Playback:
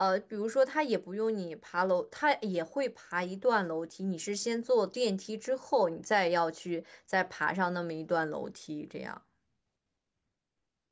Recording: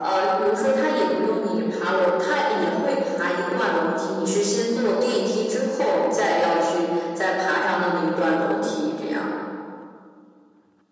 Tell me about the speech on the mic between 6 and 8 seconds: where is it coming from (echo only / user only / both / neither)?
echo only